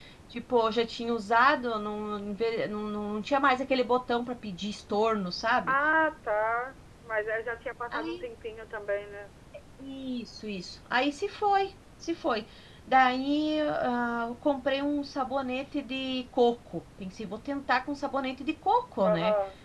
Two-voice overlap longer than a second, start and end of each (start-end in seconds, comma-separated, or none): none